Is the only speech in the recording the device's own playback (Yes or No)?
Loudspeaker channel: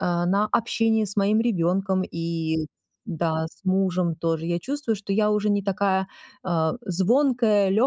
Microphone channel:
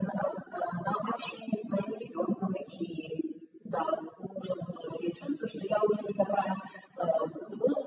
Yes